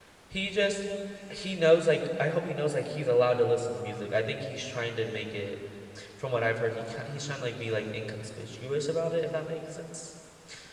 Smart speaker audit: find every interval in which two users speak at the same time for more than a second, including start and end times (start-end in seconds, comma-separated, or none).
none